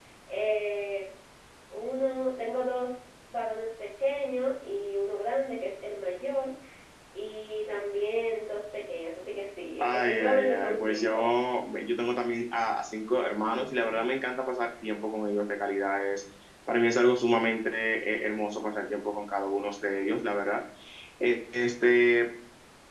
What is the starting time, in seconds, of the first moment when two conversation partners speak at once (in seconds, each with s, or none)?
9.8 s